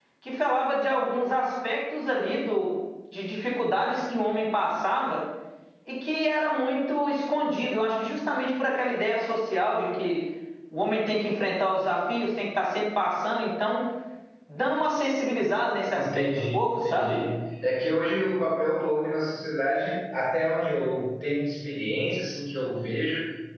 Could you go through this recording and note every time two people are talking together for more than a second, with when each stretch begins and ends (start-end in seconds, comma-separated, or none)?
16.0-17.2